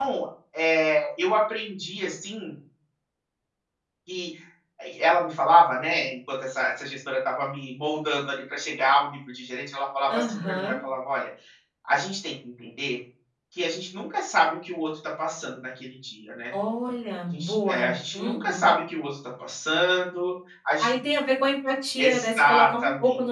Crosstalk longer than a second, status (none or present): present